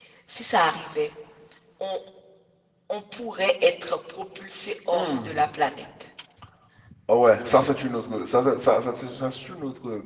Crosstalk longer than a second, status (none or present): none